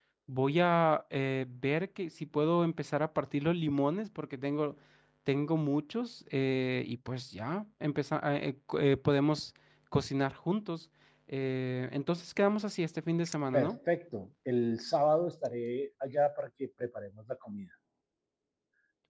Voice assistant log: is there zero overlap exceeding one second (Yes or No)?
Yes